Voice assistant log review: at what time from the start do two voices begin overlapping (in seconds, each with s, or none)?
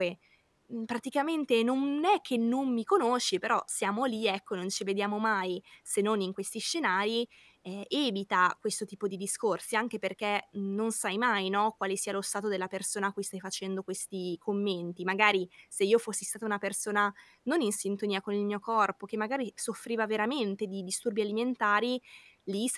none